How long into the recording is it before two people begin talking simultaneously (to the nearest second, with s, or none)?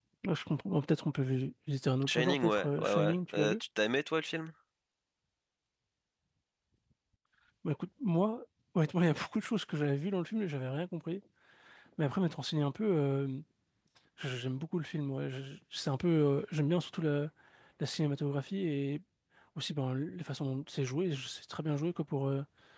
2 s